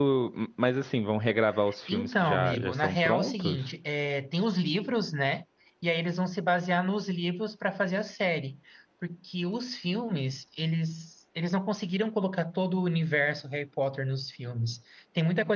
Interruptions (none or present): present